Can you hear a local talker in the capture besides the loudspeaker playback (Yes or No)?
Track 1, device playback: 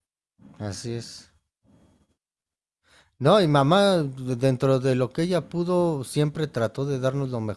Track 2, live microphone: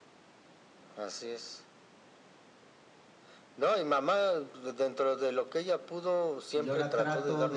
Yes